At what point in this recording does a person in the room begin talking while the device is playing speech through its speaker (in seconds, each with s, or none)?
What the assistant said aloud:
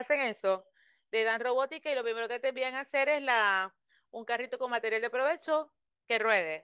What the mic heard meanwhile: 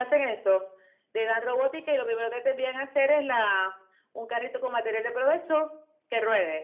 none